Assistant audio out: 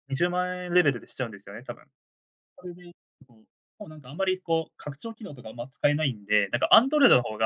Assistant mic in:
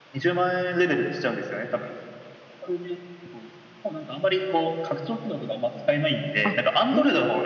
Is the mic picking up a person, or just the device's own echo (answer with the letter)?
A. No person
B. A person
B